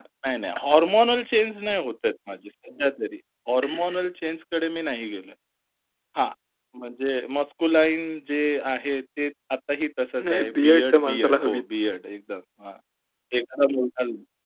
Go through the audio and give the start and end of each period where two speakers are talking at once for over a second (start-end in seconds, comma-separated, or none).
10.2-11.6